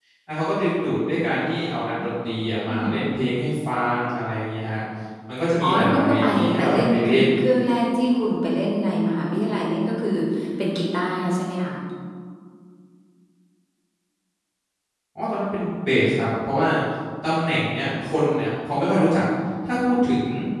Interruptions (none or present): present